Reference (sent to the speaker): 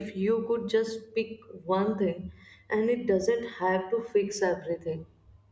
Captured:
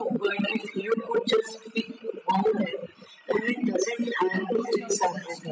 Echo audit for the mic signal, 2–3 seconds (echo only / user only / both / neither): echo only